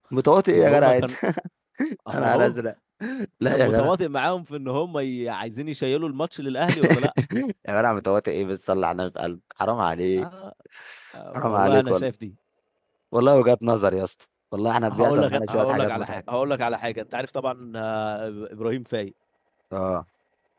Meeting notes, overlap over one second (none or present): present